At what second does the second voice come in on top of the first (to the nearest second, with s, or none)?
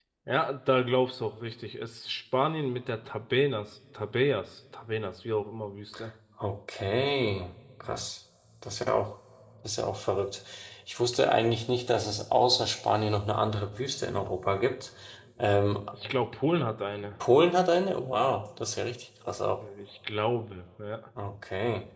none